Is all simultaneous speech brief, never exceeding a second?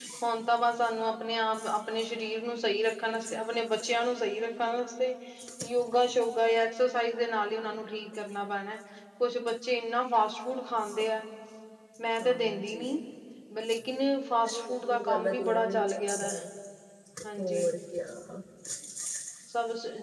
No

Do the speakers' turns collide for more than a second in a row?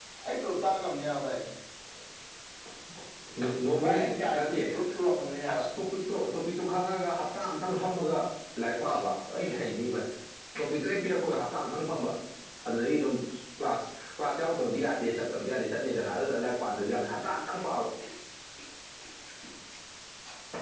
No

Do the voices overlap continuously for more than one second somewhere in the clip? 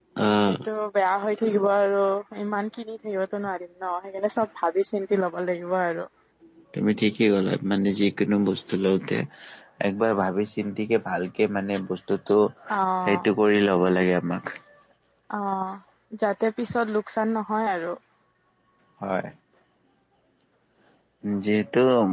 No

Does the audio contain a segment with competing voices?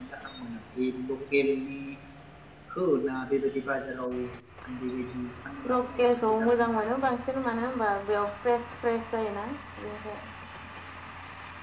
Yes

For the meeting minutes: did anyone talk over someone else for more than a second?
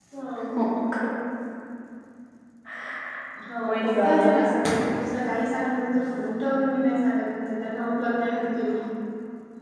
Yes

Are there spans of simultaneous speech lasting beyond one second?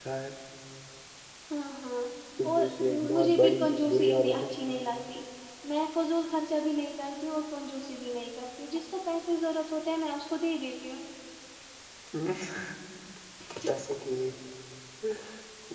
Yes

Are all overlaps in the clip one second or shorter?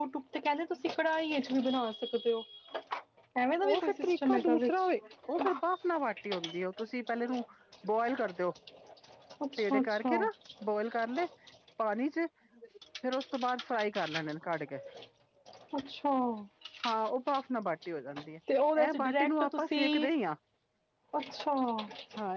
No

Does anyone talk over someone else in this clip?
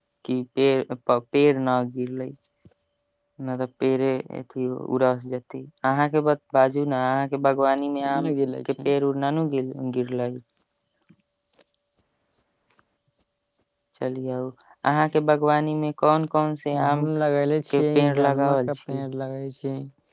Yes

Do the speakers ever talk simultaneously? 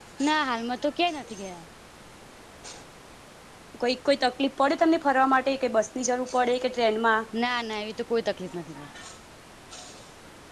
No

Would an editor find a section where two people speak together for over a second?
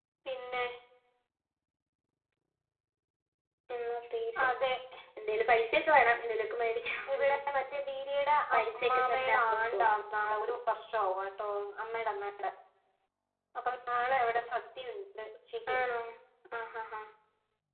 Yes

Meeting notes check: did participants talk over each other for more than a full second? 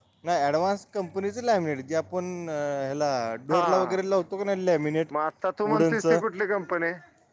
No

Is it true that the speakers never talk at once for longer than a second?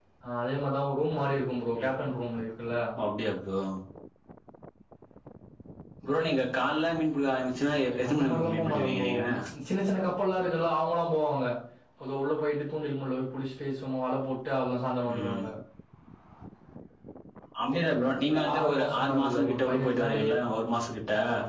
No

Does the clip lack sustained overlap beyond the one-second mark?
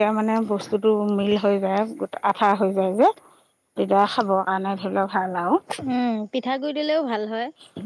Yes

